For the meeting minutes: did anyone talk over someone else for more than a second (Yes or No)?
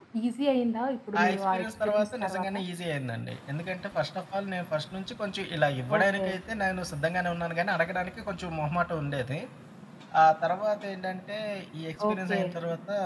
Yes